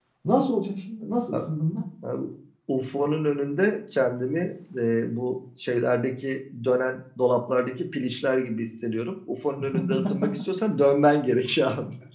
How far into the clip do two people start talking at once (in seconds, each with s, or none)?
none